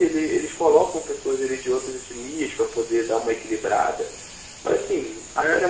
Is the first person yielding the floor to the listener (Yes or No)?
No